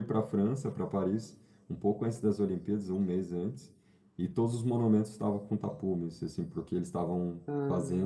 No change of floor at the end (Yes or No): Yes